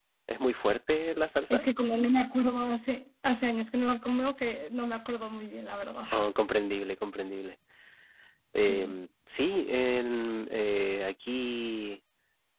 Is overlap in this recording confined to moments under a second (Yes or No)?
Yes